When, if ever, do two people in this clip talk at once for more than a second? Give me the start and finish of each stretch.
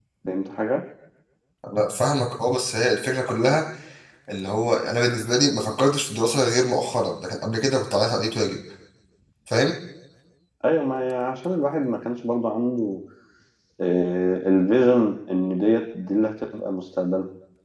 none

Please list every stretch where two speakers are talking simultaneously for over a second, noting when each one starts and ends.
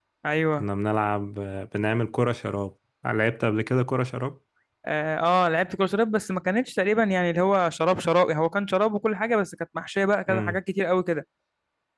none

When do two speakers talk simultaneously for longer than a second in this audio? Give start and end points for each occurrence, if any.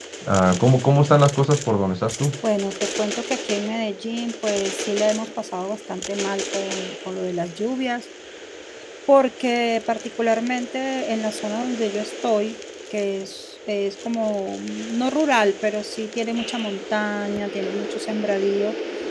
none

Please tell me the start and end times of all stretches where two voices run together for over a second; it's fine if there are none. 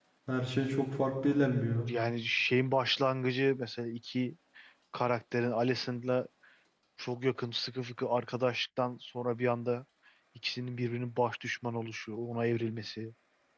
none

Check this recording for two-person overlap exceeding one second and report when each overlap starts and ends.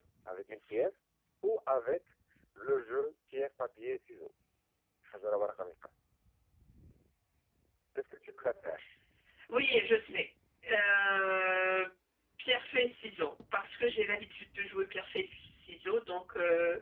none

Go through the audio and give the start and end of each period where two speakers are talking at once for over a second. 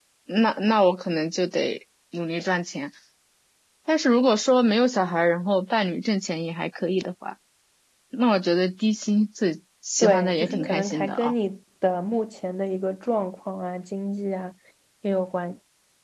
10.0-11.3

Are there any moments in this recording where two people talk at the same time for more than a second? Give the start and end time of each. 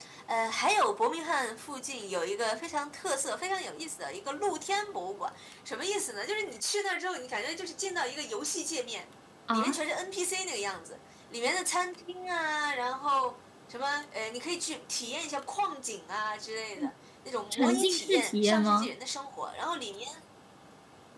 17.5-18.9

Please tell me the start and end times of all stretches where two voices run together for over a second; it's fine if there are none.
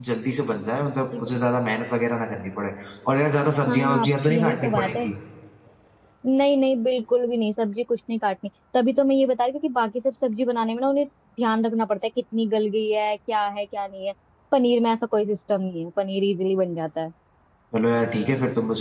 3.7-5.1

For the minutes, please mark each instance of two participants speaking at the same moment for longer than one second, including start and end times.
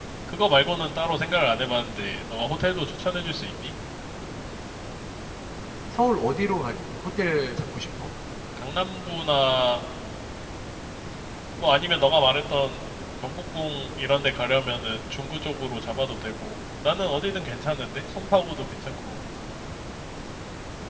none

